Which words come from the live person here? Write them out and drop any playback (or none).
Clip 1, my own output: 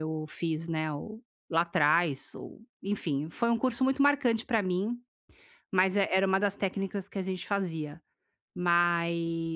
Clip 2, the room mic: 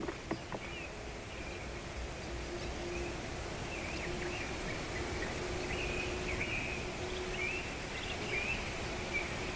none